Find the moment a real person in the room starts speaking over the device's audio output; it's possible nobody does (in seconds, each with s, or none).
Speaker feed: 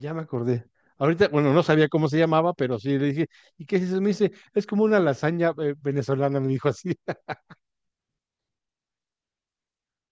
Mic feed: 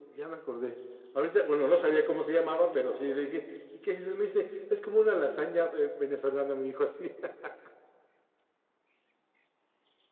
none